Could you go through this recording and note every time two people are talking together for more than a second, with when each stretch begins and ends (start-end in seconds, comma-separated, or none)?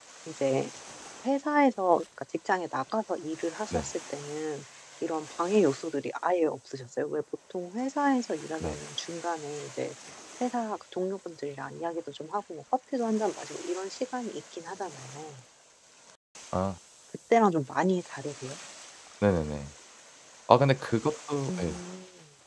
none